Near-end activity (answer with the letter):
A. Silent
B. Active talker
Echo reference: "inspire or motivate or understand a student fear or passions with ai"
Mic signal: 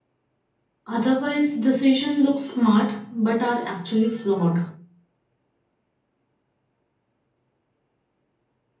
B